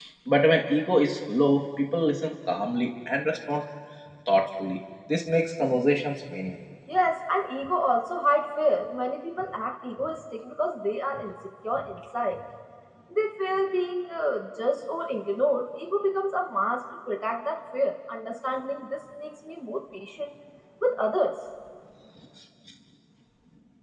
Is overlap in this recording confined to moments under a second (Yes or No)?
Yes